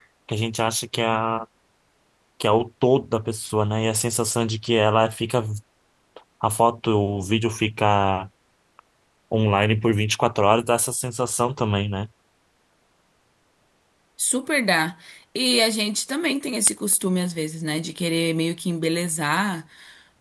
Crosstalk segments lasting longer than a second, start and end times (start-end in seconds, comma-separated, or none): none